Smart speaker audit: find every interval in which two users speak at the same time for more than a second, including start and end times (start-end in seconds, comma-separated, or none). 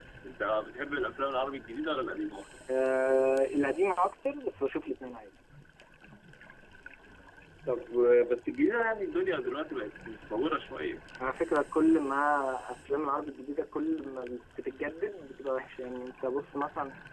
none